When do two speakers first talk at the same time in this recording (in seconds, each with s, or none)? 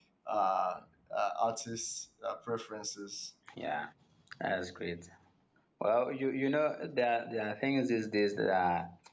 none